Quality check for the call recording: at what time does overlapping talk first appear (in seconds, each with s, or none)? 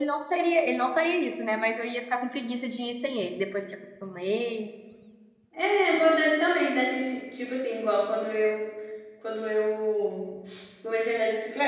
none